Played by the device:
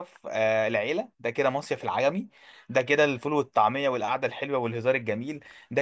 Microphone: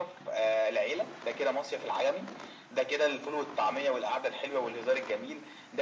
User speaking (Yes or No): No